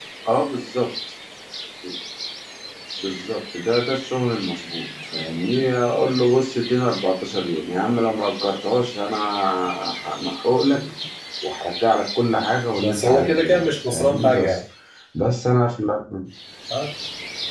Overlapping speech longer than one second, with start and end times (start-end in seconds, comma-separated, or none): 12.8-14.6